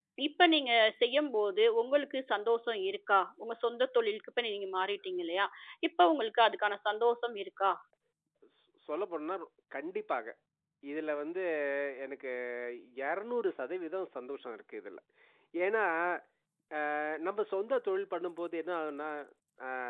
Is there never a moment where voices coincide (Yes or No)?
Yes